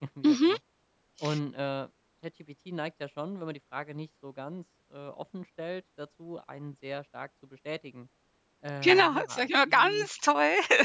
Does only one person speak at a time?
No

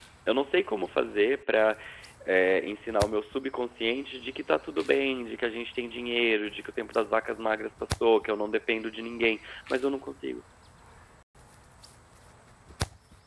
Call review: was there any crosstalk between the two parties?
No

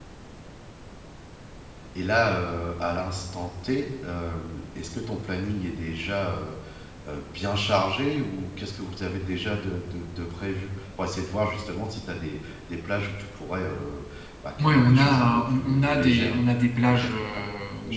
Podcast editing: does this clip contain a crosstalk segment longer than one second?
Yes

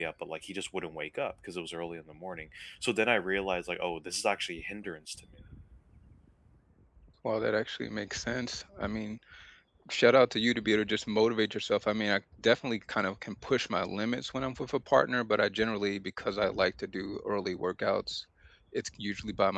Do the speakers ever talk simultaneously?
No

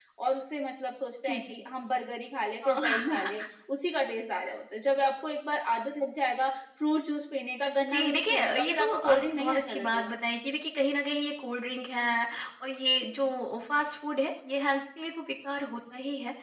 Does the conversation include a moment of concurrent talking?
Yes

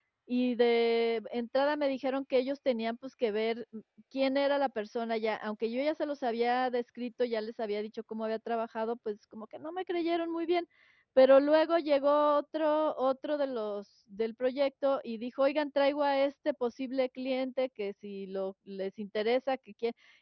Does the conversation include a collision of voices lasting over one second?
No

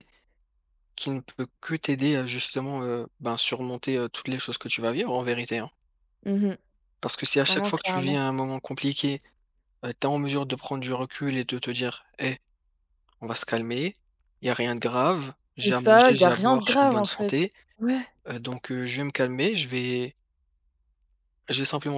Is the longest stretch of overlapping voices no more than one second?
No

